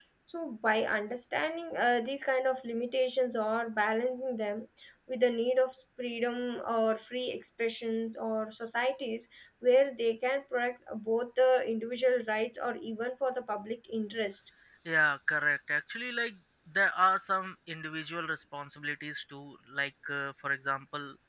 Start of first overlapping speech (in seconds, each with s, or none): none